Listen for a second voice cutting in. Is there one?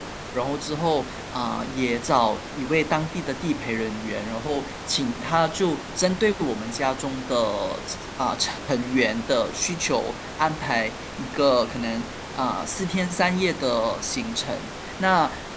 No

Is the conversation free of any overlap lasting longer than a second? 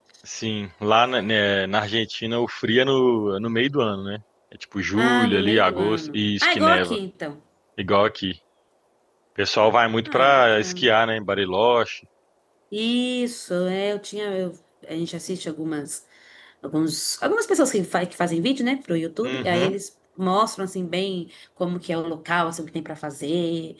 No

